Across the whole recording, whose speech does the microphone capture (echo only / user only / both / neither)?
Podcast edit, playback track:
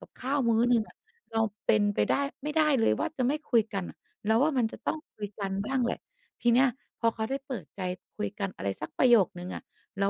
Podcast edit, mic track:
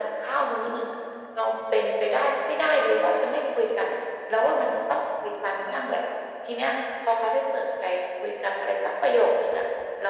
echo only